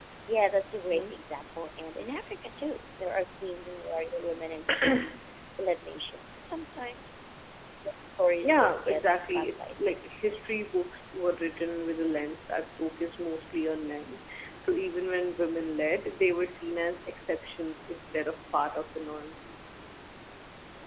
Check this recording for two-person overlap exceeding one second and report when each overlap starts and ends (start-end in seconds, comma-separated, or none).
8.4-10.4